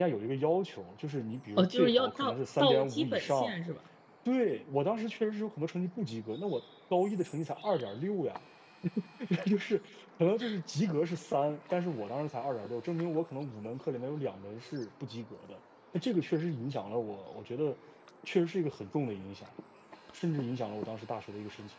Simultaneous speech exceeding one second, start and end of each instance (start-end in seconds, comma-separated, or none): 1.6-3.6